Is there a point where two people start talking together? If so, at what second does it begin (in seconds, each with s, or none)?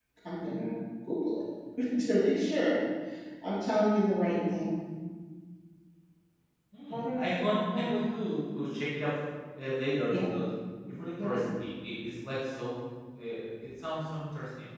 6.9 s